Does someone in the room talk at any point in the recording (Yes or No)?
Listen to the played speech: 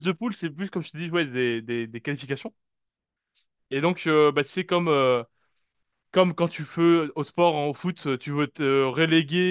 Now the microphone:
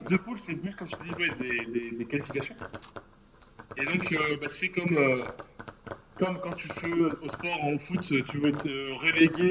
No